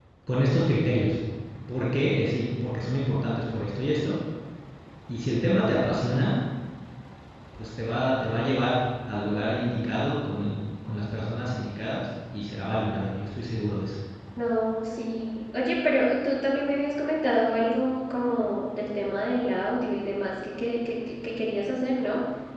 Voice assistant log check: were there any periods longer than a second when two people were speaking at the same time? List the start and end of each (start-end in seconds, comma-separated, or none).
none